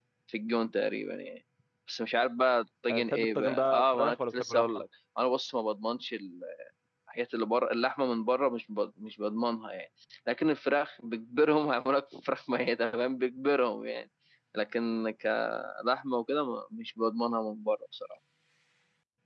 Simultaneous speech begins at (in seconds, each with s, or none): 2.9 s